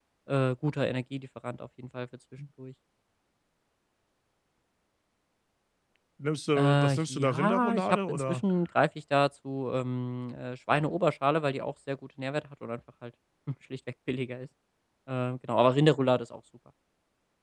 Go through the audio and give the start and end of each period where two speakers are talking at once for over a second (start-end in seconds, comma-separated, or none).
6.6-8.4